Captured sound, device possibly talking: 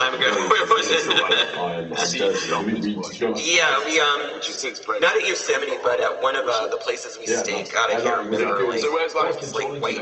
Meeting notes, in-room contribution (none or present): present